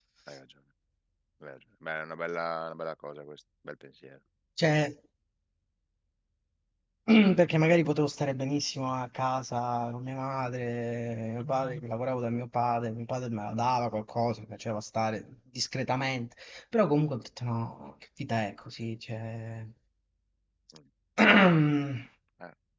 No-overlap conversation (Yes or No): Yes